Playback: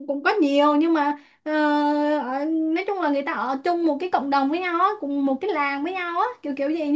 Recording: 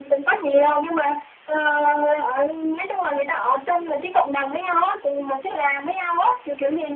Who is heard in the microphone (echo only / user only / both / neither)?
echo only